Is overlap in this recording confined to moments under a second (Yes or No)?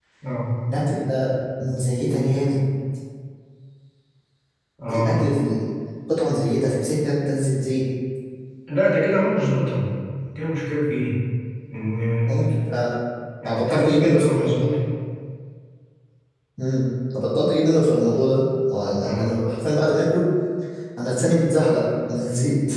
No